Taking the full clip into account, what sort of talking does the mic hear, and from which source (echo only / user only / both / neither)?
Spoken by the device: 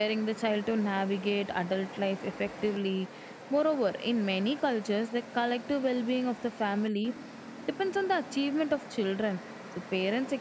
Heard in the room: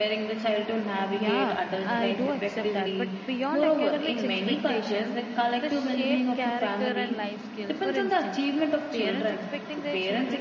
both